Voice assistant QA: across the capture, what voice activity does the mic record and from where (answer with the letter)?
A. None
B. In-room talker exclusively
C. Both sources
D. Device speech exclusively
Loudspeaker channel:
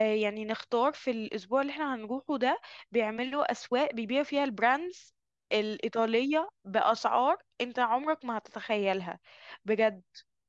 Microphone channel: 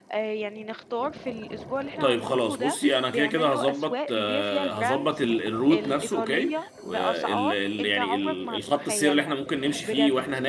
C